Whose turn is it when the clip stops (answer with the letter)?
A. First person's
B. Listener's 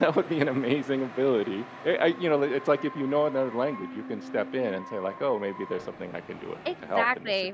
B